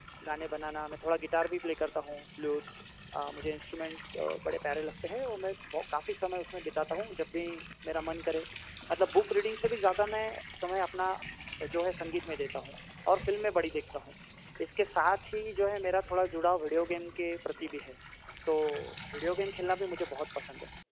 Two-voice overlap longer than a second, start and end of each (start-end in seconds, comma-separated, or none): none